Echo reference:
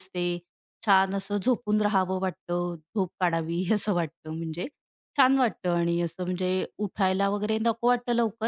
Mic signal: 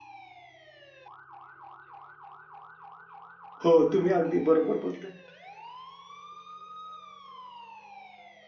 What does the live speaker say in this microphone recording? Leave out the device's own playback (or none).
हो, तुम्ही अगदी बरोबर बोलताय.